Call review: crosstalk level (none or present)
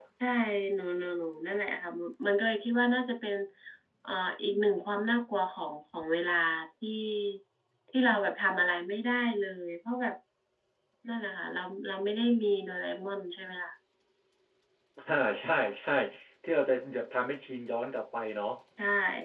none